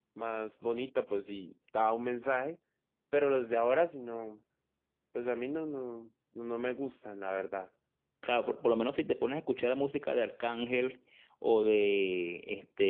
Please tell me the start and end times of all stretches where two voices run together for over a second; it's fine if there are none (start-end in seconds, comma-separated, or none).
none